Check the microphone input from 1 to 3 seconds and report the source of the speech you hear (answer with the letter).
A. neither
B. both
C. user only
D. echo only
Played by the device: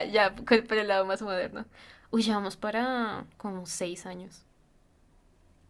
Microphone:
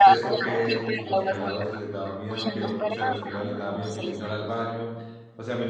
B